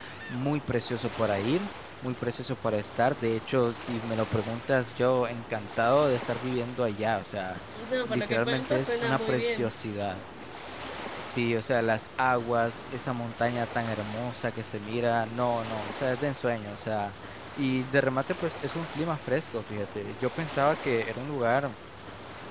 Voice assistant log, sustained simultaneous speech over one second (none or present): present